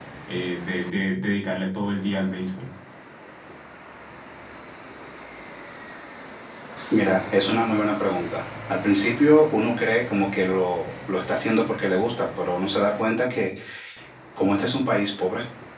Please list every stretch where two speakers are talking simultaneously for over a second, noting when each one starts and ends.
none

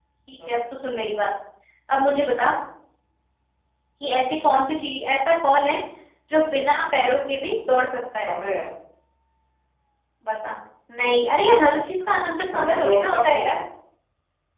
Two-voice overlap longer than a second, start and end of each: 12.2-13.4

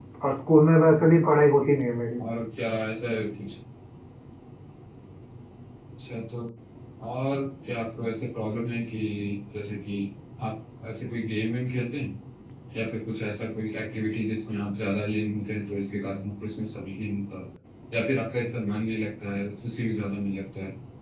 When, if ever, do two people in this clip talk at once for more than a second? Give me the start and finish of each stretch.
none

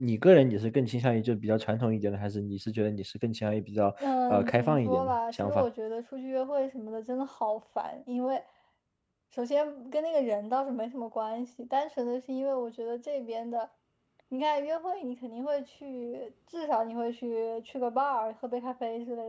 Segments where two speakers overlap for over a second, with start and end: 4.0-5.7

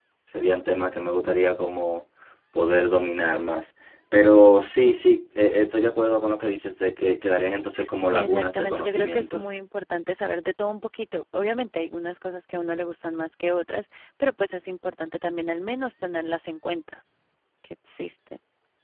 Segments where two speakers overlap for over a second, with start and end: 8.1-9.4

